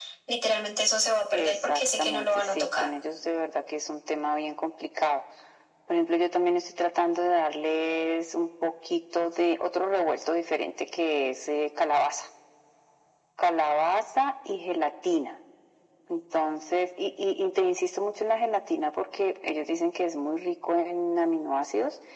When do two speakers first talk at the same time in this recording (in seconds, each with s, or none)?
1.3 s